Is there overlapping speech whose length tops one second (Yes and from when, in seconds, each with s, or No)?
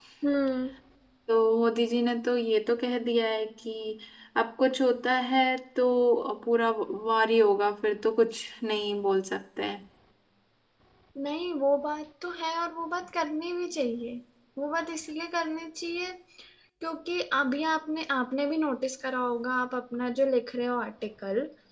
No